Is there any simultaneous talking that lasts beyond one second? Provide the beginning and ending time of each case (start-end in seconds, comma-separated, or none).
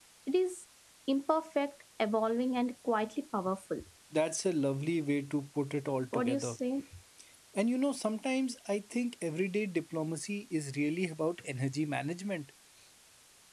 none